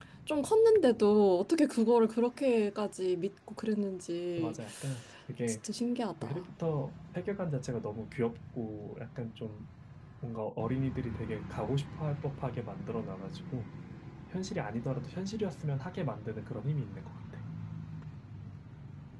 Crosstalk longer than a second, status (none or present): none